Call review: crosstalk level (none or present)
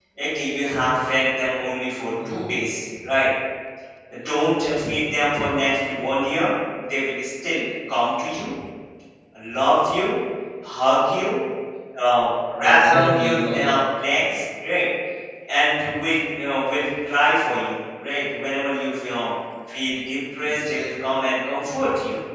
present